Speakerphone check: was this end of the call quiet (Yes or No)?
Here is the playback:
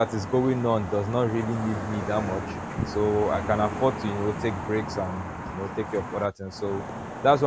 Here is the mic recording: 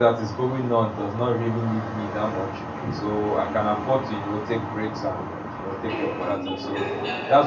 No